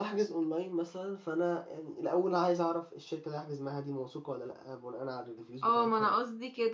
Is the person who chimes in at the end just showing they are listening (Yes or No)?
No